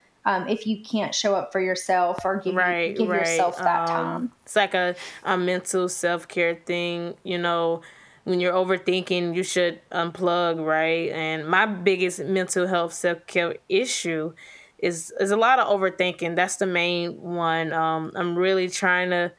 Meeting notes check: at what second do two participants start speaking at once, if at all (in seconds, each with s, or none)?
2.5 s